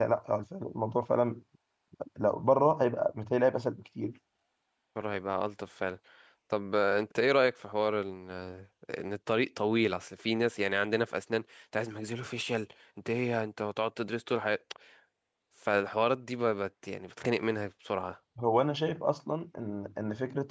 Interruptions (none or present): none